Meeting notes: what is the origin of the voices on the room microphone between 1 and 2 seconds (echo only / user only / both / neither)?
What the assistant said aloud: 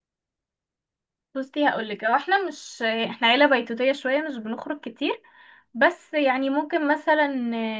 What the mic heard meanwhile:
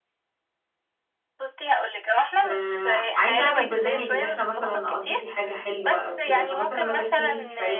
echo only